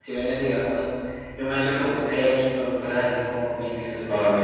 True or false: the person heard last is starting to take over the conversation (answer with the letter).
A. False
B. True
B